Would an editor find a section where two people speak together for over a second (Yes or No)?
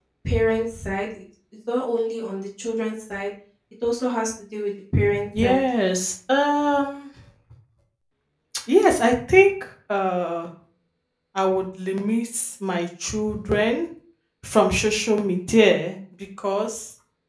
No